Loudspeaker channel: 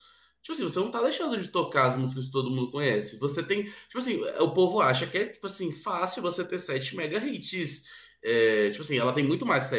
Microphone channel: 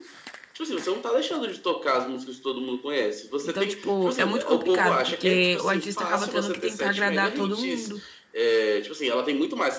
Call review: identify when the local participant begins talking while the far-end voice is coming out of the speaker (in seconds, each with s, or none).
3.4 s